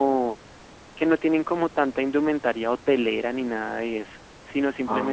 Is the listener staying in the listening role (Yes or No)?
Yes